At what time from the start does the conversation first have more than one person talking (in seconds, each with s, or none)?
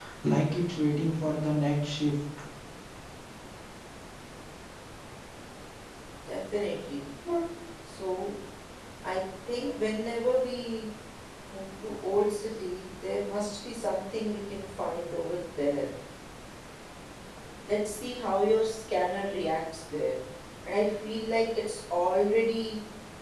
none